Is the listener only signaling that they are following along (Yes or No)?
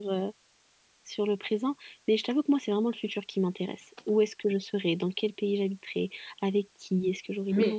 No